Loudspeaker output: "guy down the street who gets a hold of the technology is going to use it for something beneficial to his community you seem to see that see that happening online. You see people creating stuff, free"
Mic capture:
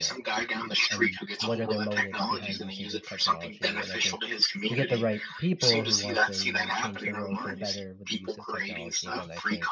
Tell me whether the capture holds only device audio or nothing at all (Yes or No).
No